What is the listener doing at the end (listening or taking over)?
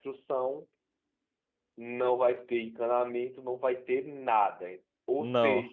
listening